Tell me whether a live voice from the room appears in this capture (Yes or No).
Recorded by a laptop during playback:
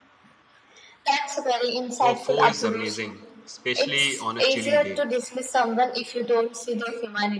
Yes